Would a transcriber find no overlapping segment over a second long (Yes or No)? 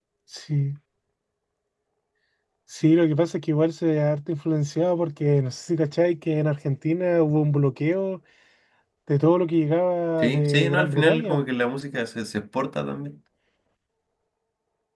No